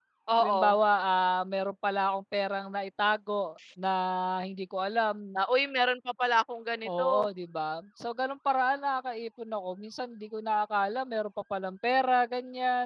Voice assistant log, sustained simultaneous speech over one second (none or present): none